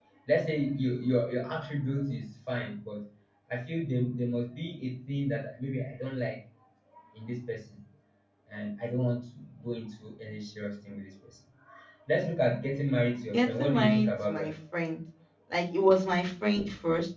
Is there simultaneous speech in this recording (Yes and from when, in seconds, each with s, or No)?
Yes, from 13.3 s